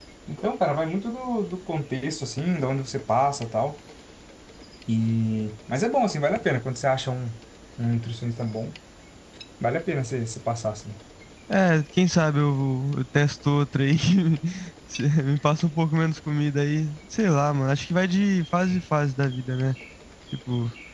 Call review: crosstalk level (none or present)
none